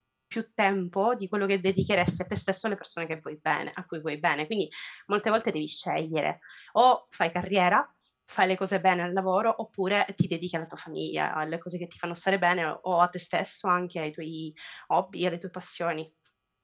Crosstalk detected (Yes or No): No